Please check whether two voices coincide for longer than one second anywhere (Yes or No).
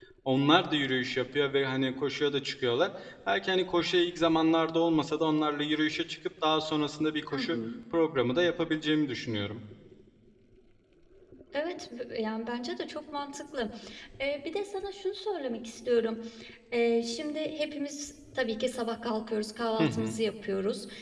No